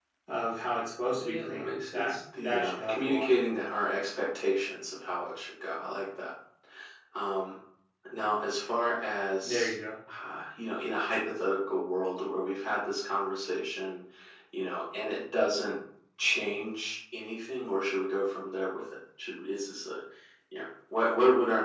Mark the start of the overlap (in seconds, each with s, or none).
1.2 s